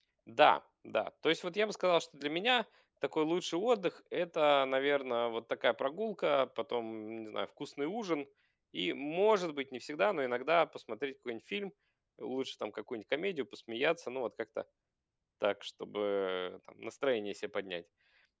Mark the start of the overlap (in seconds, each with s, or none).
none